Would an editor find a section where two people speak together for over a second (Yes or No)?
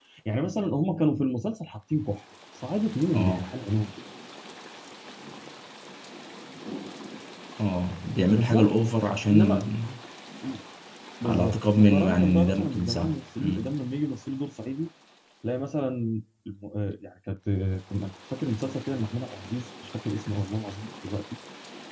Yes